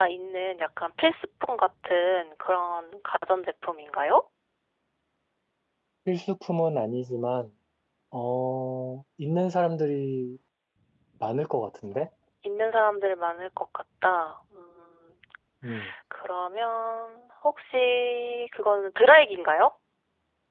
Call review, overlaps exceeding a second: none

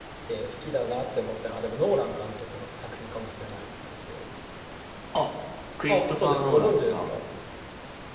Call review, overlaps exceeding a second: present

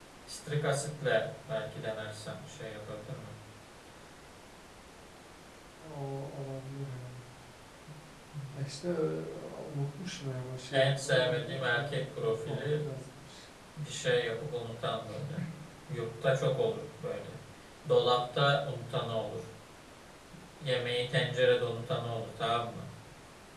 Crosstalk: present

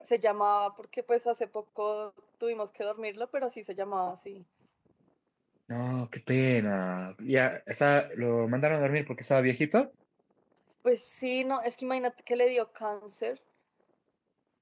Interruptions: none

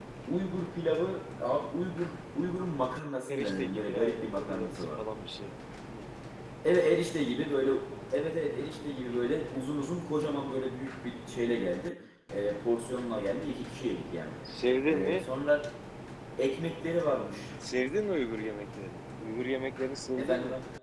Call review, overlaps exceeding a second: present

